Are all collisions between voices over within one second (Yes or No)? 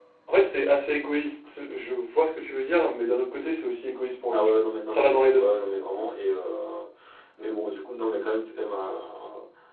No